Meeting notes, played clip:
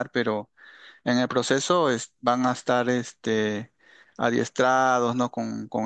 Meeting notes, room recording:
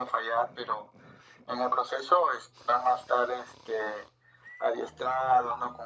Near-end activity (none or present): none